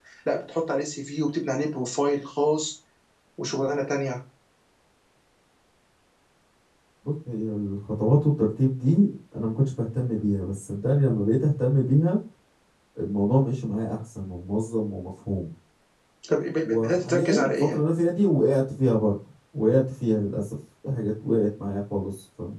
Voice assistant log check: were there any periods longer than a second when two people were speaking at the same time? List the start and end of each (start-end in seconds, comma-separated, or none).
16.6-17.9